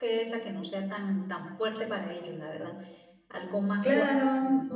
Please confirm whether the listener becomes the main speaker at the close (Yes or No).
Yes